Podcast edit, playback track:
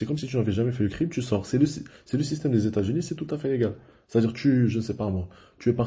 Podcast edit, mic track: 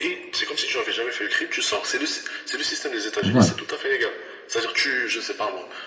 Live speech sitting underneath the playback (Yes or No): No